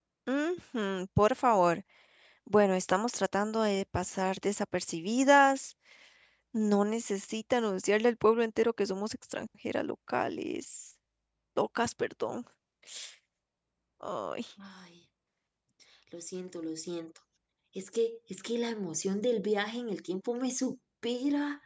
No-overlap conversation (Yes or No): Yes